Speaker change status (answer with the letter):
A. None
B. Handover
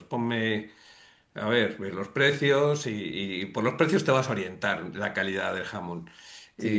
B